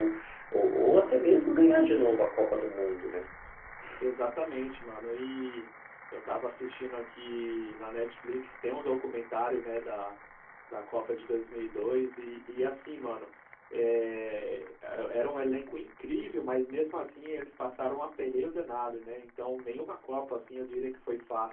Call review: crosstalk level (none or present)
none